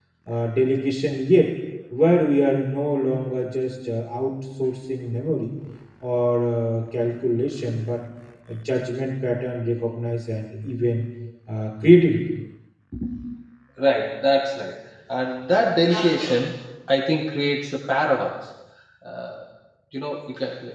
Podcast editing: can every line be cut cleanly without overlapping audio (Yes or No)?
Yes